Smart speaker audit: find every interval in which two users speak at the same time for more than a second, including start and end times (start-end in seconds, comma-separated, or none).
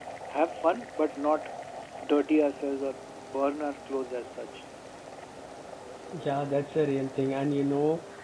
none